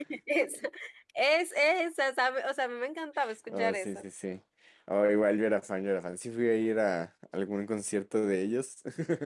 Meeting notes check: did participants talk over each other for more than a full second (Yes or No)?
No